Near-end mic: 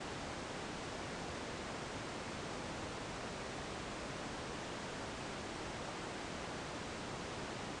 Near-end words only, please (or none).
none